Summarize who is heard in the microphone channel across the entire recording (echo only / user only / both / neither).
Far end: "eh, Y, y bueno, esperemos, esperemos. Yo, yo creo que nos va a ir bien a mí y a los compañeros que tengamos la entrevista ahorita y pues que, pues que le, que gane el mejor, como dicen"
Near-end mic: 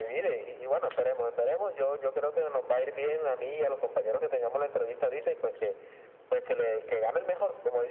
echo only